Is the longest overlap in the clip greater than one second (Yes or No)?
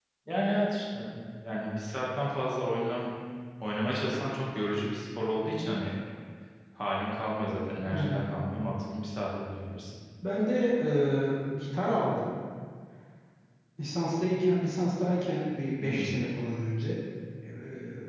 No